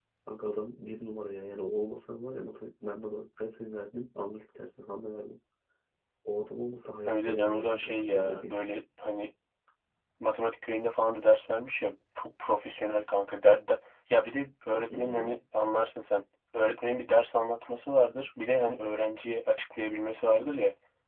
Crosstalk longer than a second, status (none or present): present